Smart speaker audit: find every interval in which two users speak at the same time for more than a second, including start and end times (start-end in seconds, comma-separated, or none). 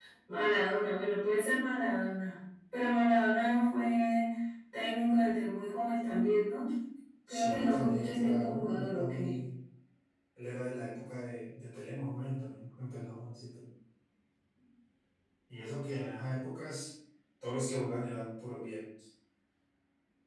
7.3-9.3